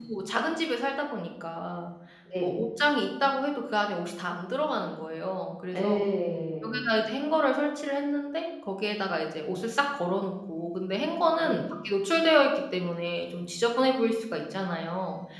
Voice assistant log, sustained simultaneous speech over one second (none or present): none